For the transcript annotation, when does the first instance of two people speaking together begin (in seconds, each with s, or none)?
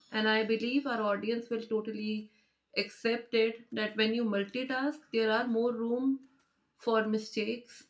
none